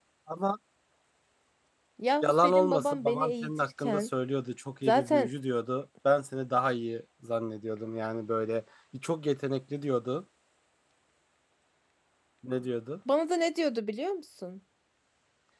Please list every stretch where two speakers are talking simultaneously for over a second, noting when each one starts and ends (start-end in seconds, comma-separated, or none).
2.2-4.1